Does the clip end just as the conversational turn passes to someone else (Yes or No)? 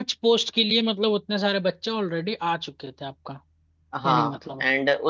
Yes